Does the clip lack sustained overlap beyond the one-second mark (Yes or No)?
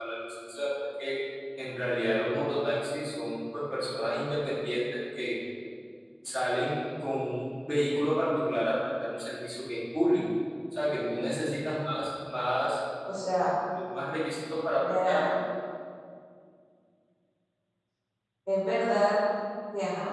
Yes